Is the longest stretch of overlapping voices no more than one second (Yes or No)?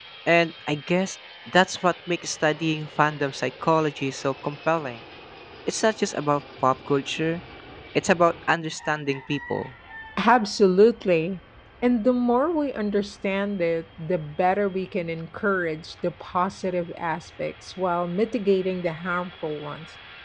Yes